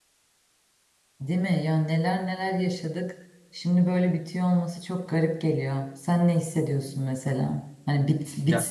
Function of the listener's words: listening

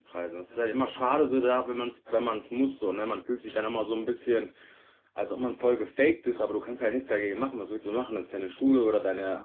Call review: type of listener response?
taking over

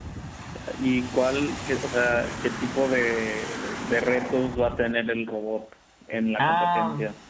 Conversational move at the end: taking over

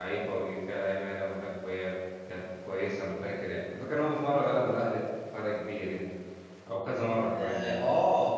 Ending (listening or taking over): taking over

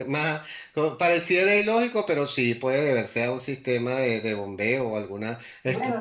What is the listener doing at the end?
taking over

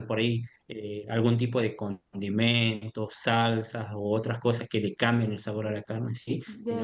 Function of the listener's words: listening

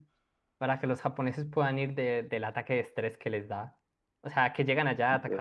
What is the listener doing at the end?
listening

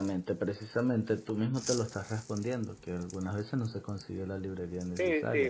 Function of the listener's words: taking over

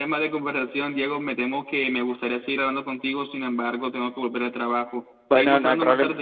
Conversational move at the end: taking over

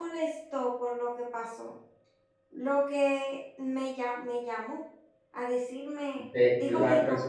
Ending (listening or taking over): taking over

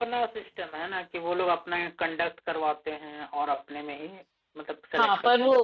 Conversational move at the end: taking over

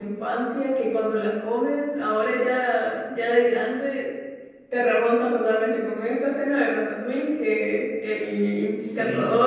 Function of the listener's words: listening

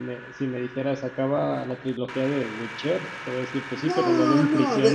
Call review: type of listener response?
taking over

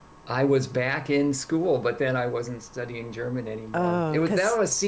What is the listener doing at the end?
listening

